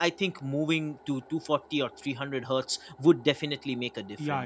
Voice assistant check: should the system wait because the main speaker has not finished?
No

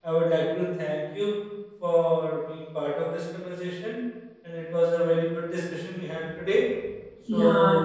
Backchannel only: No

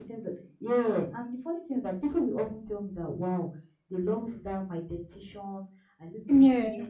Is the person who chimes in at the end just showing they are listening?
Yes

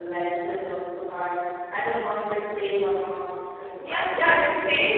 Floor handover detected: Yes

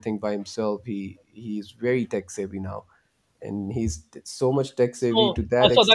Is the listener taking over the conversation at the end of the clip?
Yes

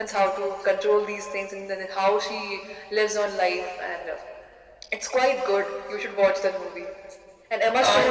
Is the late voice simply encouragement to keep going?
Yes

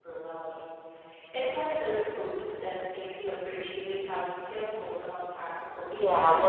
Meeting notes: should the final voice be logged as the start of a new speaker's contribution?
Yes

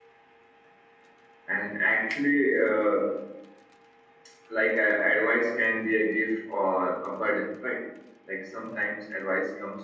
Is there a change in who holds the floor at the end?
No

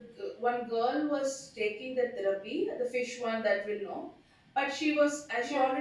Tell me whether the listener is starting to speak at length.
No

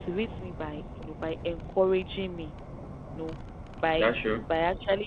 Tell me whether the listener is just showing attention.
Yes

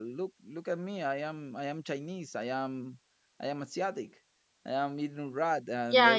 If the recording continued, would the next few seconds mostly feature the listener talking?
No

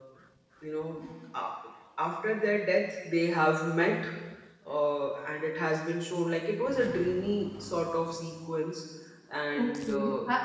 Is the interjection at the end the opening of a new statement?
Yes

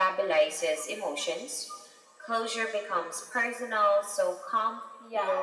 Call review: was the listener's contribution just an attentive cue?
No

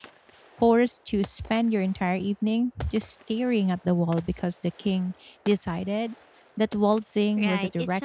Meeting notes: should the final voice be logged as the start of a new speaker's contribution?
Yes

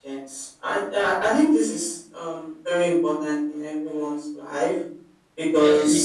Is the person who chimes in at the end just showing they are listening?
Yes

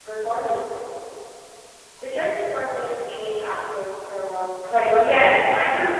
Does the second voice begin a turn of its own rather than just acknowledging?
Yes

